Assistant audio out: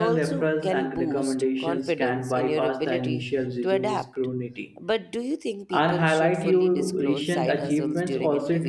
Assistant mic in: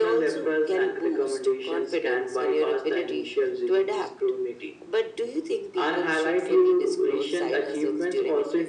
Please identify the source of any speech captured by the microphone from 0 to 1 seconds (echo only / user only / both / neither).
echo only